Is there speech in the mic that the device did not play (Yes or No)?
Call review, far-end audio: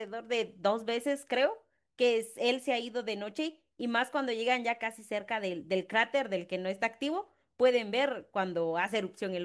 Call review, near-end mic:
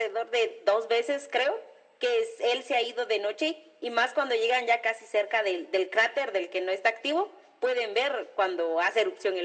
No